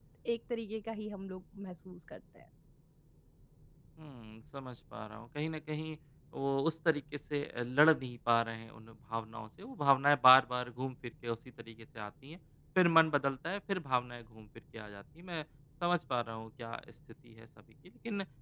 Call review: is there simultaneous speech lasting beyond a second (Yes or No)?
No